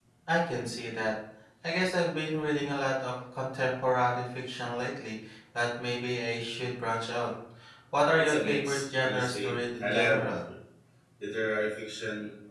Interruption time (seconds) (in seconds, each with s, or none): 8.2 s